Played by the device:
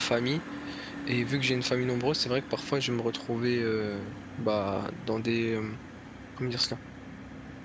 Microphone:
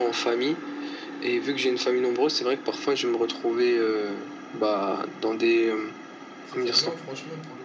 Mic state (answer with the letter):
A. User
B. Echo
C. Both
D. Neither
C